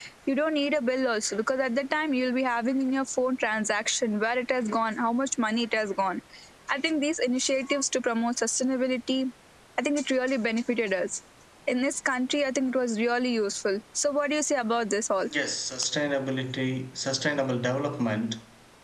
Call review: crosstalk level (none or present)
none